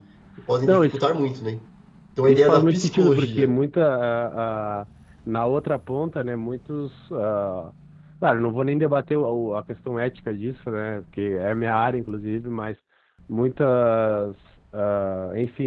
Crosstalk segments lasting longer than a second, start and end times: 2.3-3.5

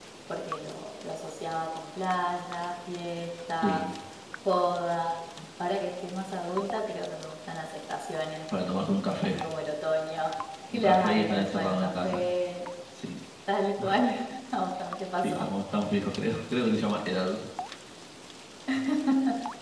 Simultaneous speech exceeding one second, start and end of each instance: 10.7-12.3

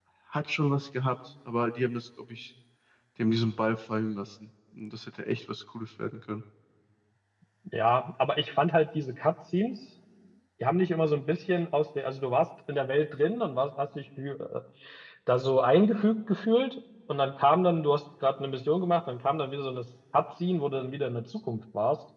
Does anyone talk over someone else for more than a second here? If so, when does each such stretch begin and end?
none

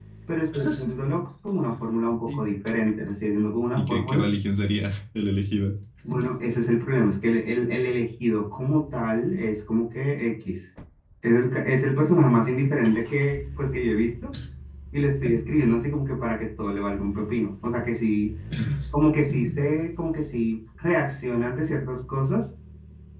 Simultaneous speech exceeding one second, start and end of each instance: none

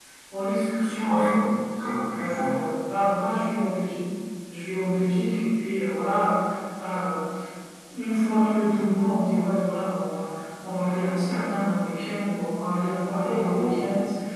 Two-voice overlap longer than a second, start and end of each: none

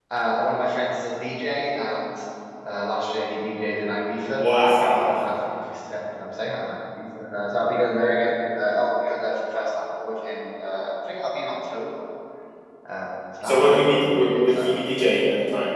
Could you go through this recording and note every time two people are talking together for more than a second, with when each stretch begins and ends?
13.4-14.9

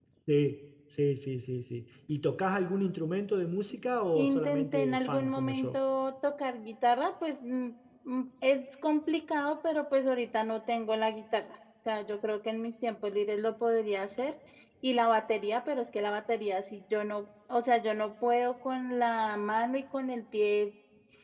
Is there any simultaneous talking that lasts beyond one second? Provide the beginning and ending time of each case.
4.2-5.8

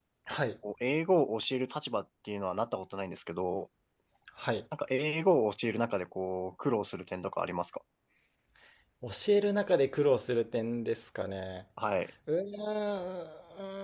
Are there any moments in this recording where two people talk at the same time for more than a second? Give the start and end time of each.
none

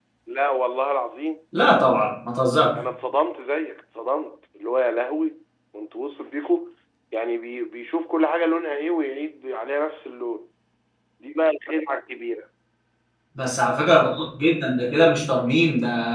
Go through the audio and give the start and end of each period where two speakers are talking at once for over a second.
none

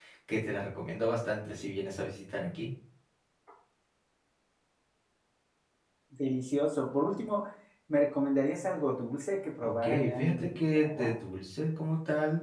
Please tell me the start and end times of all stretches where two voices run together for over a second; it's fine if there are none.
9.6-11.1

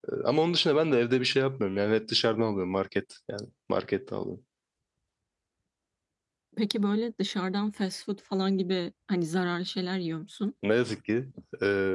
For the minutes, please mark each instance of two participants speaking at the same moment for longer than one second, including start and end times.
none

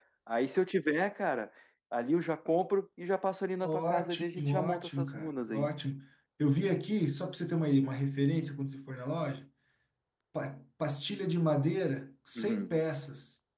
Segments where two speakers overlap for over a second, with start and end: 3.6-5.7

